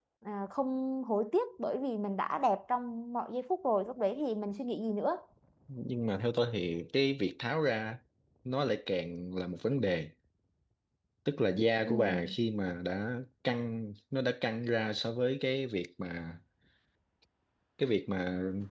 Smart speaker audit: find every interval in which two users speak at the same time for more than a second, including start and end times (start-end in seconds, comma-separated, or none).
none